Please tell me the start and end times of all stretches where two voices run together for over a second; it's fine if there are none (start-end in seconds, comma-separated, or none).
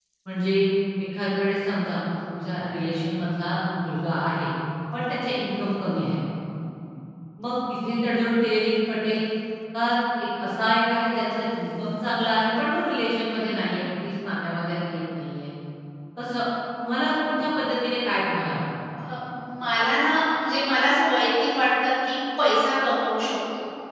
none